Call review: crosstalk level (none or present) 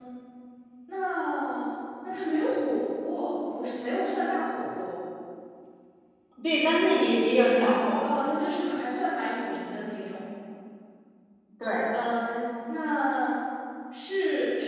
none